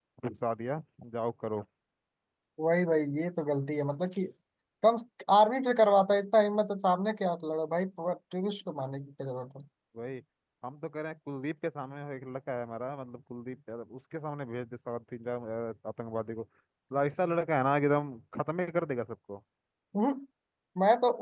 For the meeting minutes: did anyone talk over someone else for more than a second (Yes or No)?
No